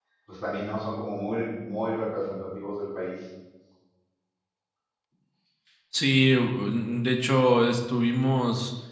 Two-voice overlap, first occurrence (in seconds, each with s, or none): none